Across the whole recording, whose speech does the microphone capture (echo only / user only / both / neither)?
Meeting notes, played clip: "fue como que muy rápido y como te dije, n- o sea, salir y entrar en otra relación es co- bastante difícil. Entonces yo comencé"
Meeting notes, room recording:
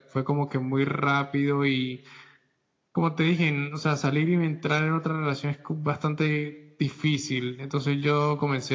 echo only